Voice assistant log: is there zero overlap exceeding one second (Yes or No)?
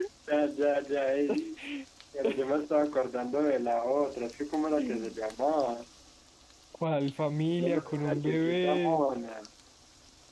No